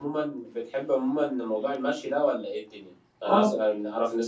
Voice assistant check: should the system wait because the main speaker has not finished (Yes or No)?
Yes